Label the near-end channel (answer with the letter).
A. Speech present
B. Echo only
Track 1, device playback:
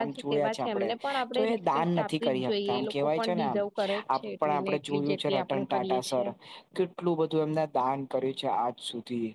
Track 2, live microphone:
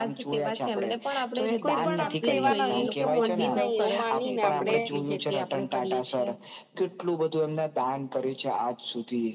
A